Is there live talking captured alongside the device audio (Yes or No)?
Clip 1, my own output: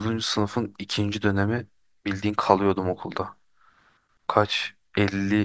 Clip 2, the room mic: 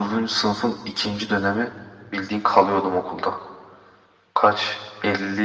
No